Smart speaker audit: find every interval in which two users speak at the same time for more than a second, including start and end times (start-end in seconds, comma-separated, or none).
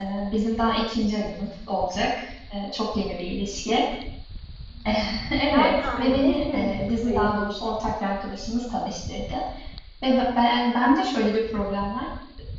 5.5-7.5